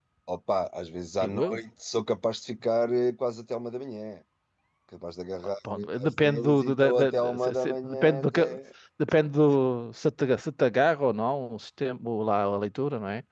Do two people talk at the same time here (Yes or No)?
Yes